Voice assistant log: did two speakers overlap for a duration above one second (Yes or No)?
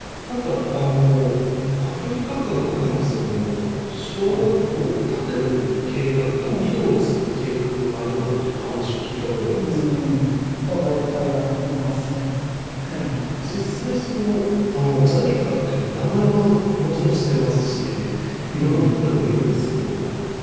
No